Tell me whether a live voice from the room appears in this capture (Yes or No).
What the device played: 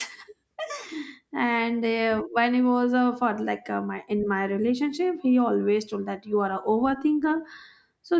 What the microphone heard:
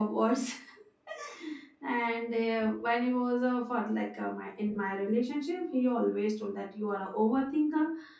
No